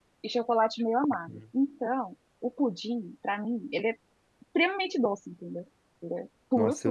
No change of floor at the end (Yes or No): No